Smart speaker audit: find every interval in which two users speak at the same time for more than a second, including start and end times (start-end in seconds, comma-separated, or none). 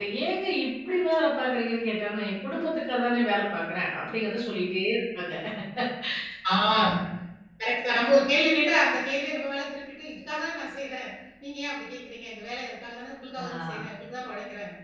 none